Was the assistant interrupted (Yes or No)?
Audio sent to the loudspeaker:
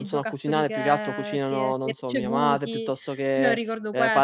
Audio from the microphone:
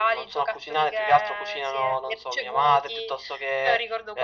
No